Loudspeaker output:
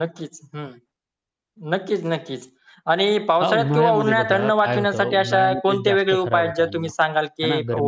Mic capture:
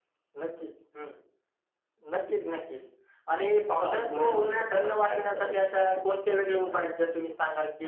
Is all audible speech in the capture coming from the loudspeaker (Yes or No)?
Yes